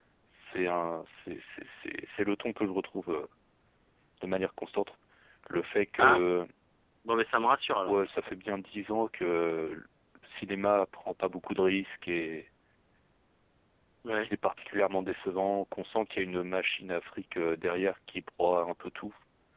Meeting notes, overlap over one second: none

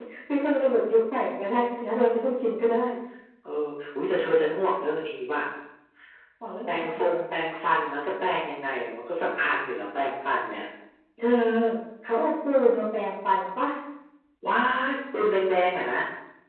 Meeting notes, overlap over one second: none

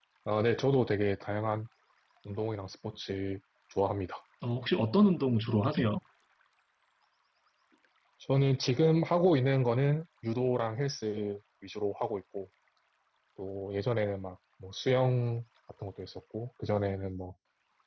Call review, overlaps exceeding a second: none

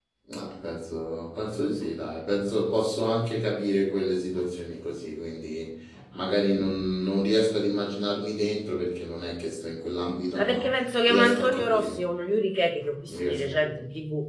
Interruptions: present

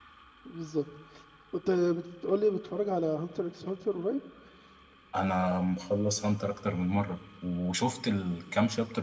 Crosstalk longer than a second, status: none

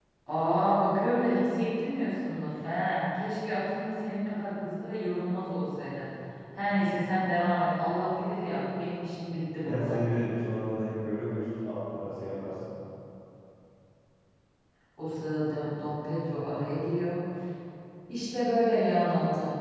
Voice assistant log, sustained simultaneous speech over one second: none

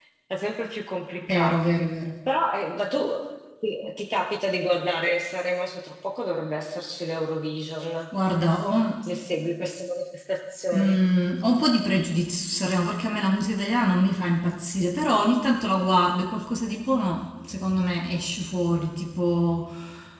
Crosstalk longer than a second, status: none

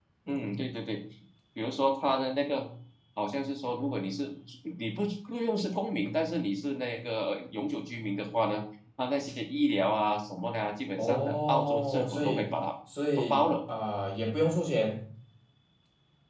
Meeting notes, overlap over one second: present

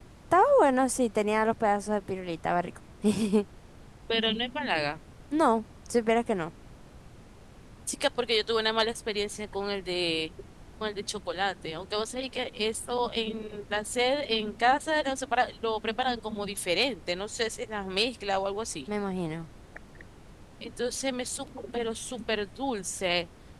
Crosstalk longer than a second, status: none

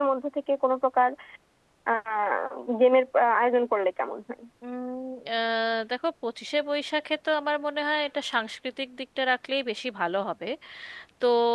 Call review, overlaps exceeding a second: none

